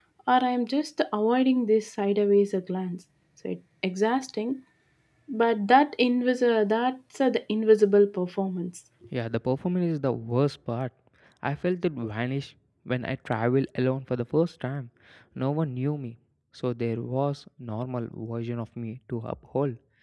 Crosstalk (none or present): none